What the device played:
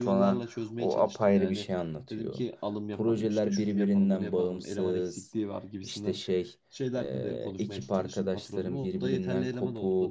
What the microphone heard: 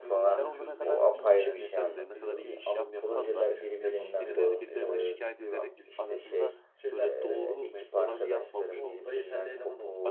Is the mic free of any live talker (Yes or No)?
No